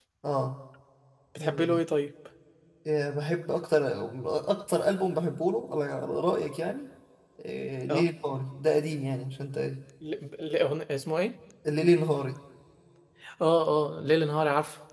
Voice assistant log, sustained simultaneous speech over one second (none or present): none